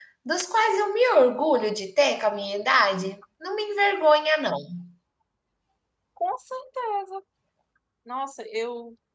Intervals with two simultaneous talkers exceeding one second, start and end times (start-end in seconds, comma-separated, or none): none